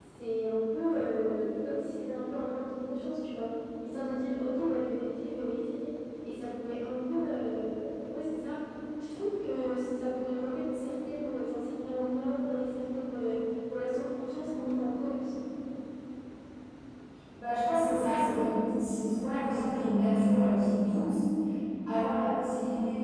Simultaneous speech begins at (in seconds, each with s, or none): none